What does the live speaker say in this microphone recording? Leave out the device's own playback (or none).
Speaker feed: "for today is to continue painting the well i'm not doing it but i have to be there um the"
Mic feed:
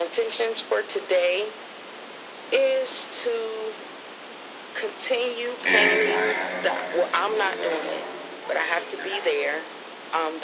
And I have a podcast for those that are looking for a show to get on.